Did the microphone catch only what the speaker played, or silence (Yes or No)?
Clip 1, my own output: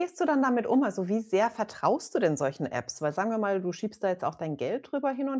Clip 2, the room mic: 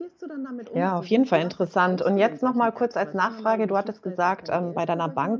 No